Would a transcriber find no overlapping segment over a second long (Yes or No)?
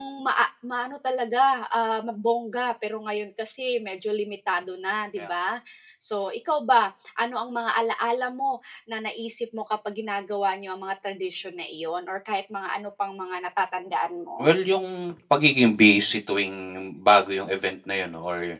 Yes